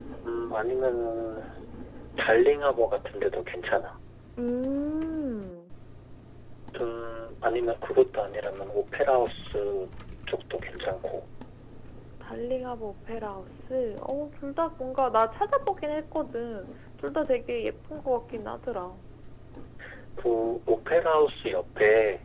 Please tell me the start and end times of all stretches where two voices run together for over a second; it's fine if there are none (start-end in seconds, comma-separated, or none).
none